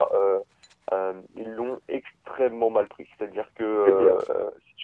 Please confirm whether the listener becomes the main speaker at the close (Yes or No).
No